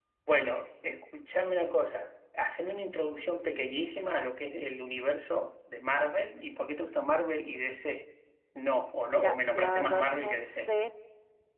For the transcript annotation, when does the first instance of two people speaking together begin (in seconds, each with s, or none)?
9.1 s